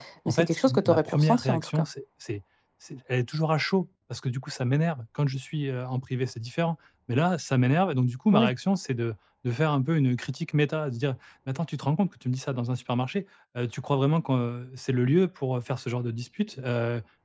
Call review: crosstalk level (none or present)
present